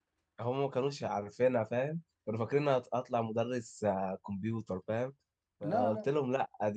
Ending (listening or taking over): listening